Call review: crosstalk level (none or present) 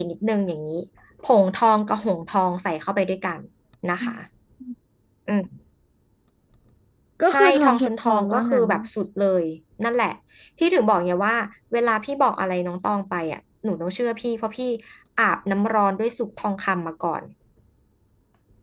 present